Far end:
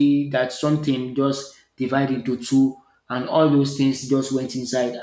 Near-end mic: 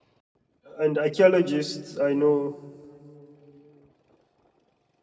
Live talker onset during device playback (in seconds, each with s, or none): 0.8 s